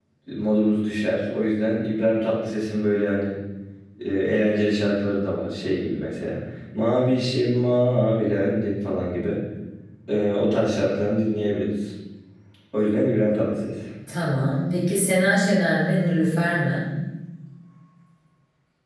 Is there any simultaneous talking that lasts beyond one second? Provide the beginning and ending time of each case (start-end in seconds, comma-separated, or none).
none